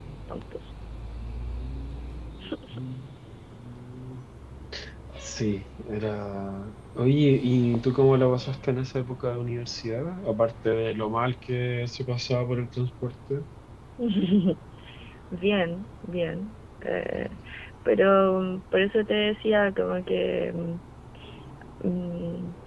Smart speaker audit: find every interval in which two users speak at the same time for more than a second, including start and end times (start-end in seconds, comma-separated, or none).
none